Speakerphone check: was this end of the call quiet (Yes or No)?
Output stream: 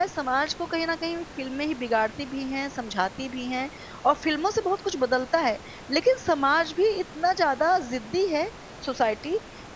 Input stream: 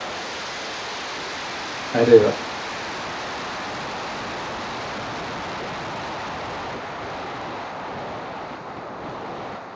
No